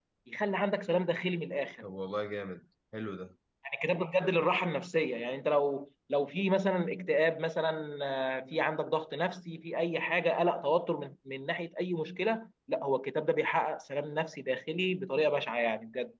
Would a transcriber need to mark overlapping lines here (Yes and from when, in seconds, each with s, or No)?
No